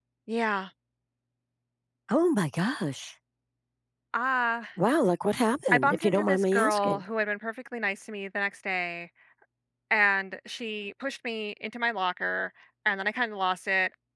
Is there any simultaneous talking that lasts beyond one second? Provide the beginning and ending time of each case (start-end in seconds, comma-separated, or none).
5.7-7.0